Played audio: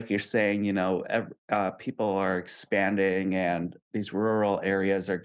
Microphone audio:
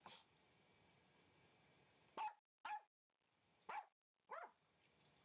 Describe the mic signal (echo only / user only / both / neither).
neither